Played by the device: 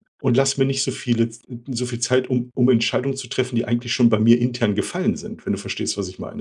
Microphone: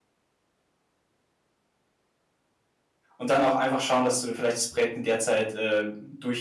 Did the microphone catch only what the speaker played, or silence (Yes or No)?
No